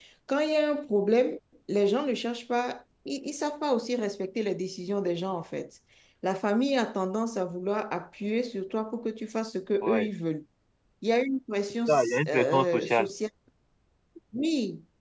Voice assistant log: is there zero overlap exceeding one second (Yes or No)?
No